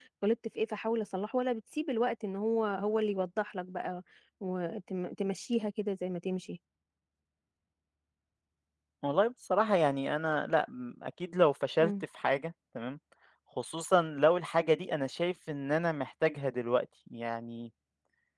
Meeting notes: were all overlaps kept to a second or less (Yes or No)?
Yes